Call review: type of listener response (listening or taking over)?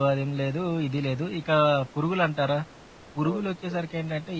listening